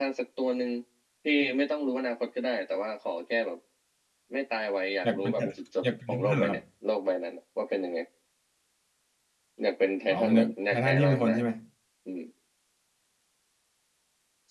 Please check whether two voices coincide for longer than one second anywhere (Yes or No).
Yes